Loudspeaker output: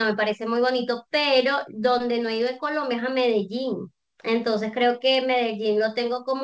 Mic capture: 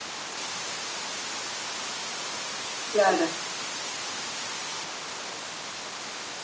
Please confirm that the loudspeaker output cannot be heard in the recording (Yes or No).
Yes